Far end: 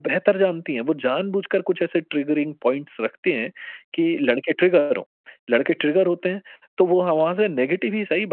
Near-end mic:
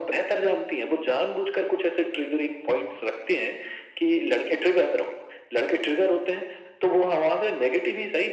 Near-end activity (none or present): none